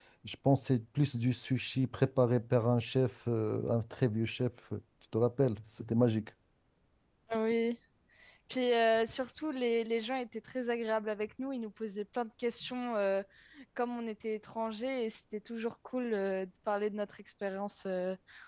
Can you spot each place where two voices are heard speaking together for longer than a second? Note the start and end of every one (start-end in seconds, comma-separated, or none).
none